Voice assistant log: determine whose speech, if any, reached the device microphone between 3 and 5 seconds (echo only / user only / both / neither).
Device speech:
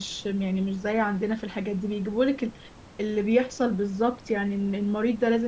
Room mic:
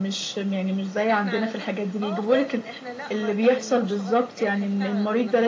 both